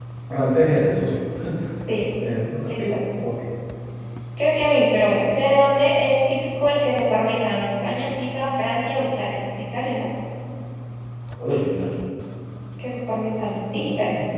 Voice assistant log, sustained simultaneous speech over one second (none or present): none